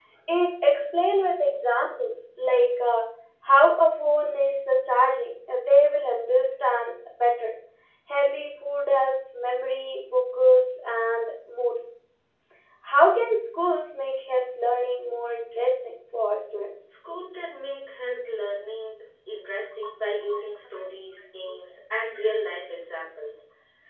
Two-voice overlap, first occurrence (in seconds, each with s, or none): none